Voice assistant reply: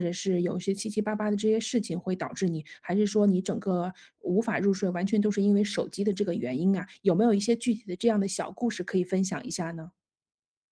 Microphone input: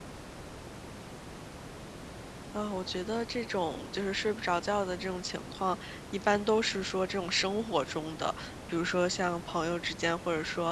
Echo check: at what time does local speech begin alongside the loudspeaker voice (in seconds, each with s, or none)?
2.5 s